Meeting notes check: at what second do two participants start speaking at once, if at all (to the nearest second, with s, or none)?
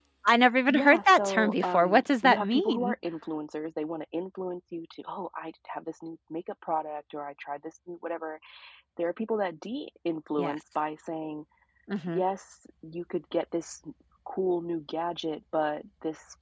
1 s